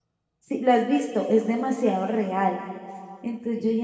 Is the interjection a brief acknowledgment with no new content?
Yes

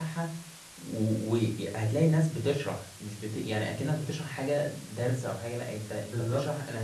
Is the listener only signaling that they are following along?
Yes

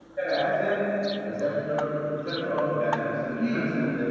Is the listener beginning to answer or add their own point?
No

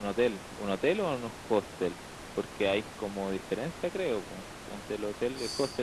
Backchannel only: Yes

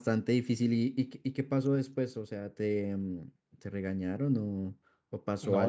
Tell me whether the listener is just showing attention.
No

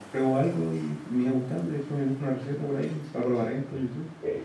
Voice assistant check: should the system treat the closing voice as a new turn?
Yes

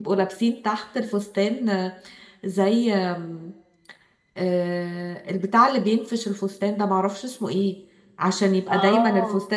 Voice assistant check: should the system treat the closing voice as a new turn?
No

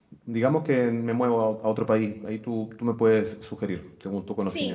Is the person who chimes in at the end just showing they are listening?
No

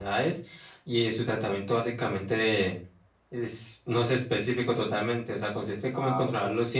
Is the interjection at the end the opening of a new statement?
No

